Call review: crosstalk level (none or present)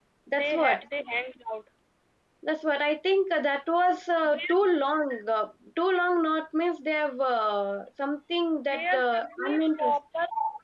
present